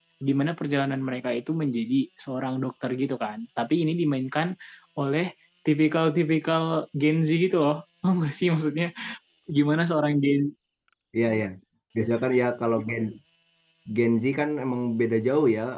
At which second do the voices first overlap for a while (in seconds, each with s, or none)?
none